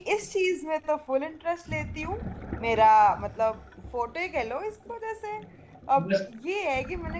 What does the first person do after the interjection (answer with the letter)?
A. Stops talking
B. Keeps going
B